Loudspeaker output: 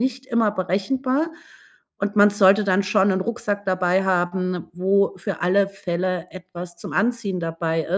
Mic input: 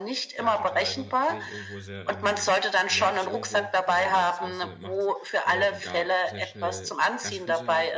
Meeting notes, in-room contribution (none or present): present